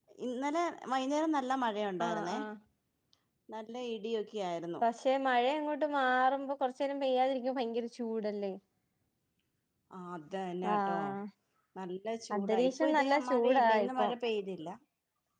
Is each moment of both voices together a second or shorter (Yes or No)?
No